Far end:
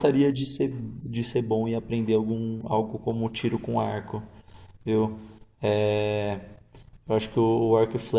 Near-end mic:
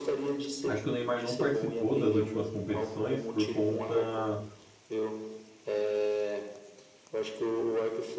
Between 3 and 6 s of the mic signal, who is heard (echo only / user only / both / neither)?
both